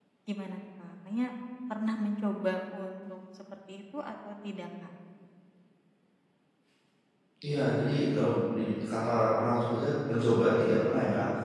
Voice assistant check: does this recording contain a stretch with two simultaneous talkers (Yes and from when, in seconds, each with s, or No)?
No